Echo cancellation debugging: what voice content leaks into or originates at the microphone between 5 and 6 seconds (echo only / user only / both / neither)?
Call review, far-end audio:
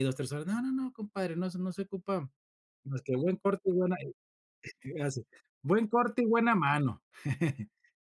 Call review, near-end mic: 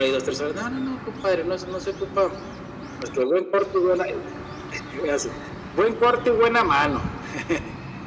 echo only